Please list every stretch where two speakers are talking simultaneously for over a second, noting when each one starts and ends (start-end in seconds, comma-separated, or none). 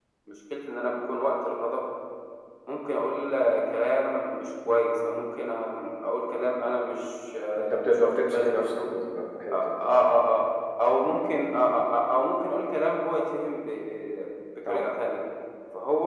7.6-8.8